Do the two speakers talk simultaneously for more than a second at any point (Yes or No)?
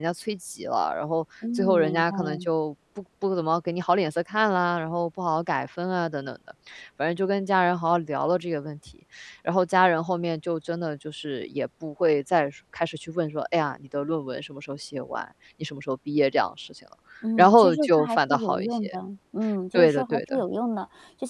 Yes